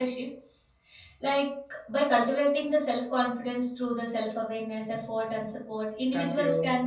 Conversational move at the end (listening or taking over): listening